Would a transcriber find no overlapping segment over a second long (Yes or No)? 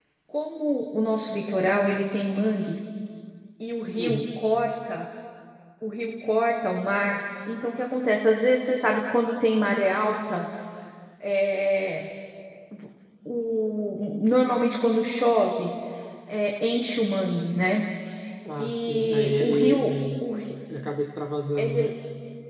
No